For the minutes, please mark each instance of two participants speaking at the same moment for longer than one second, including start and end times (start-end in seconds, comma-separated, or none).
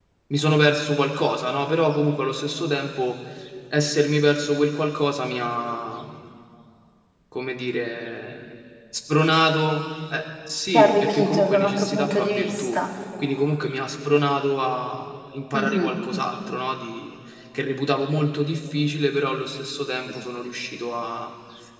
10.7-12.8